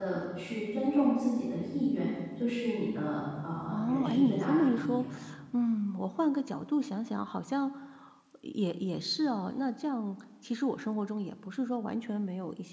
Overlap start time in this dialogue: 3.7 s

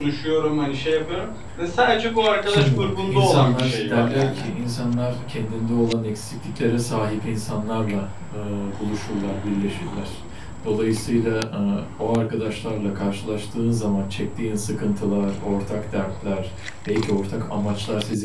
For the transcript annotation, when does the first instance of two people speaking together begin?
2.5 s

